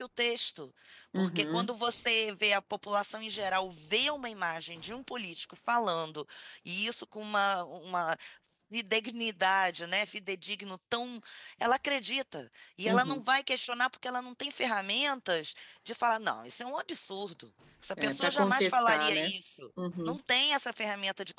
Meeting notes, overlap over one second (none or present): present